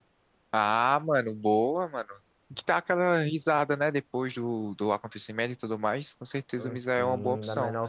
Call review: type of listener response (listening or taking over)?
taking over